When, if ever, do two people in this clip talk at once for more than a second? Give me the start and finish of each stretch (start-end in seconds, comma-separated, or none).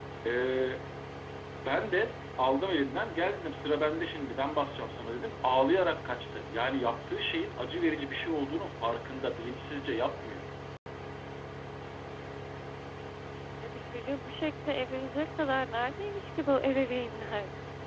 none